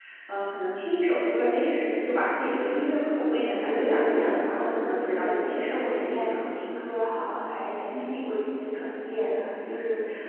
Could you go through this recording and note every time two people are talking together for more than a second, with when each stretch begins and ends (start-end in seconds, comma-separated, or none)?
3.6-6.3